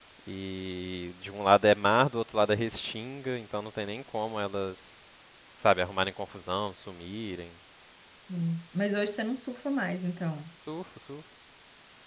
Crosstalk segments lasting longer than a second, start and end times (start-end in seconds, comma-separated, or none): none